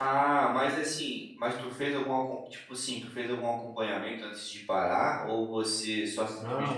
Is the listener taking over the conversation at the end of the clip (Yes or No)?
Yes